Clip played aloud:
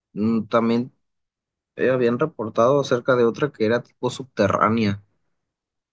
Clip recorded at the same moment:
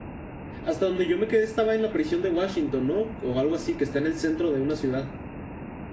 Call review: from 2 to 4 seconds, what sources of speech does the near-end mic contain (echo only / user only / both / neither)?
user only